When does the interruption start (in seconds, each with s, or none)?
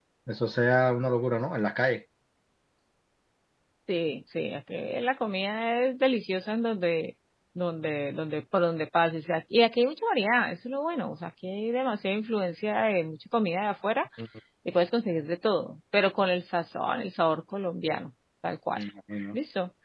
none